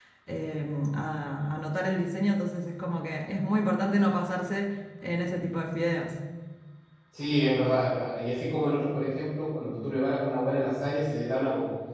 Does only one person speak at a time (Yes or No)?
Yes